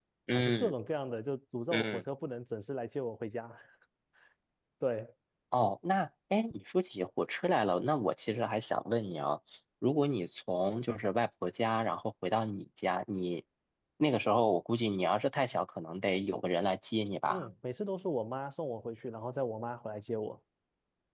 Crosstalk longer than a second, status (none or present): none